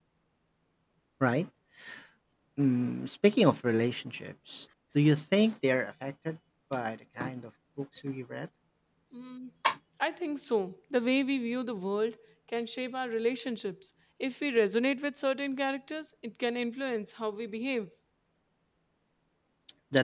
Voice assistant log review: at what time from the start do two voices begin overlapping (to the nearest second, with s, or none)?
none